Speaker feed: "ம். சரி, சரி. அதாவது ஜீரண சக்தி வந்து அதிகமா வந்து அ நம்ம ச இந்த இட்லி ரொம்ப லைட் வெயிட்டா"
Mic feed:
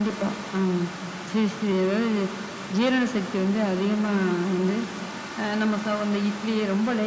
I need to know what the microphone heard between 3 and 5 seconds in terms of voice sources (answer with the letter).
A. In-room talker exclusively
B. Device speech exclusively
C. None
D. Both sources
B